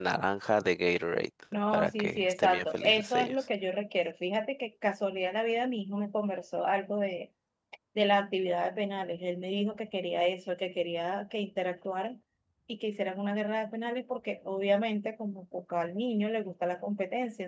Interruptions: present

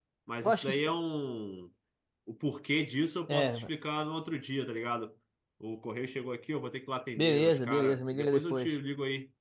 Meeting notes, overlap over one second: present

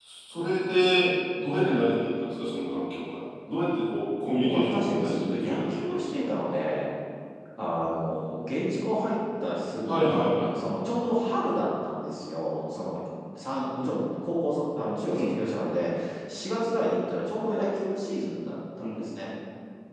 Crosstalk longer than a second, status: present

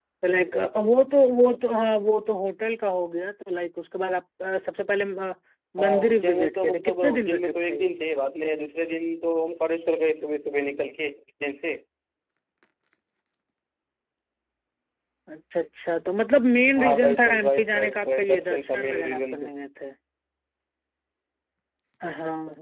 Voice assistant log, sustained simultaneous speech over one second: present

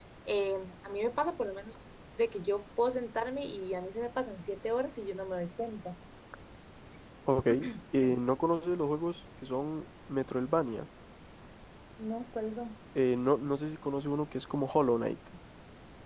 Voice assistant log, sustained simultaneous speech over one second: none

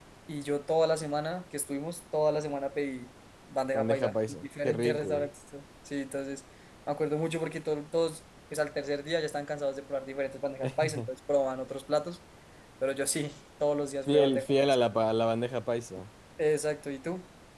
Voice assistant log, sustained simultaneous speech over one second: present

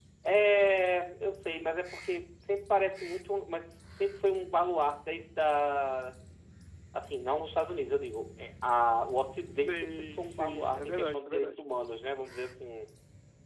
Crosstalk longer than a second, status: present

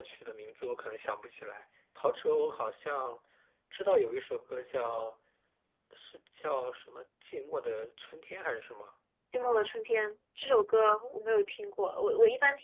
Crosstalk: none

